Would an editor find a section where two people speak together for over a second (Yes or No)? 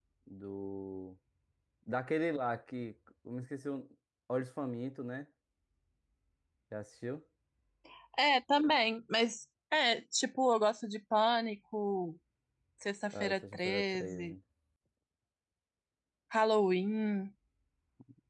Yes